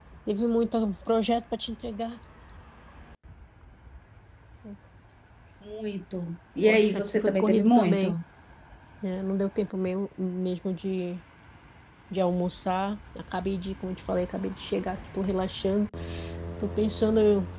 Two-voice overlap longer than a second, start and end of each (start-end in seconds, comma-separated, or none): 6.6-8.1